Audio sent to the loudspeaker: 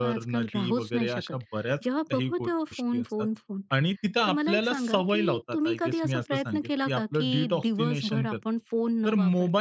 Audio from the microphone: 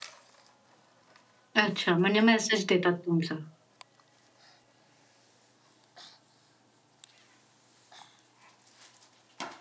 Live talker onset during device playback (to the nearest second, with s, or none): 2 s